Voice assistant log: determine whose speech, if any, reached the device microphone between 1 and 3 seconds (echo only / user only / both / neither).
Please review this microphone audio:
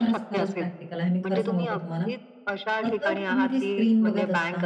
both